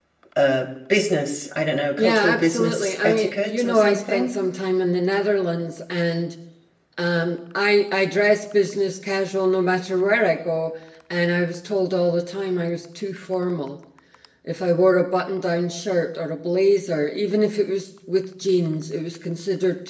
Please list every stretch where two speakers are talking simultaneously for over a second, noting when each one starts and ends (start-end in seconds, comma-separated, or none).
2.0-4.3